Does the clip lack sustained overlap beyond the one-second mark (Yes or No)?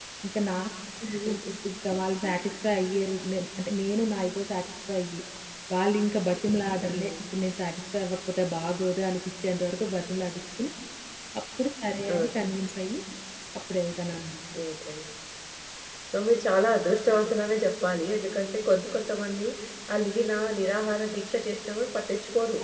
Yes